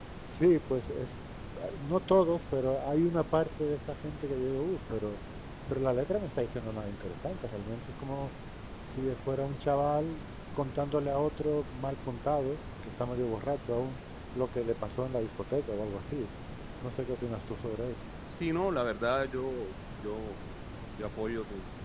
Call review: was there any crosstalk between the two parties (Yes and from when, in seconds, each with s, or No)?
No